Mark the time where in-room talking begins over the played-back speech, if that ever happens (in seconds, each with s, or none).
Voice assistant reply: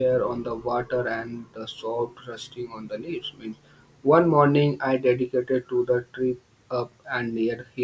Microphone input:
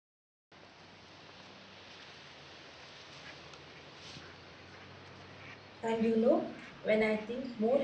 5.8 s